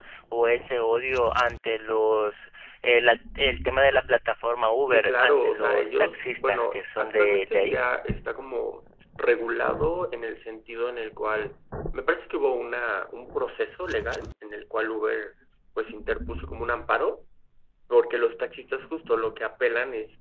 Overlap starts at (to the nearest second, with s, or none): 5 s